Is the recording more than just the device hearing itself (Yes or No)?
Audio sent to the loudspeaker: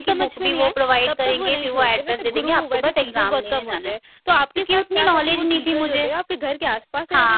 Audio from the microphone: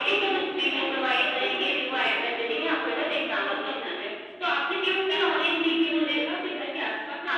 No